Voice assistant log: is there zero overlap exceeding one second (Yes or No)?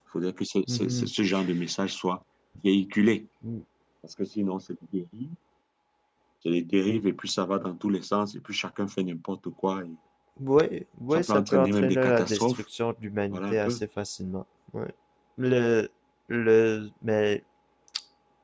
No